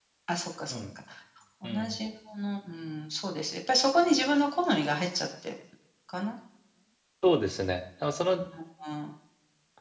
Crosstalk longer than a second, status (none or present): none